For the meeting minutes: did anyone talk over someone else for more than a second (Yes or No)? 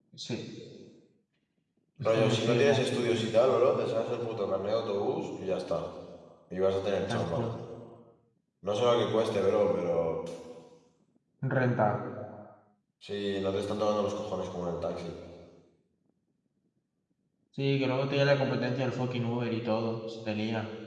Yes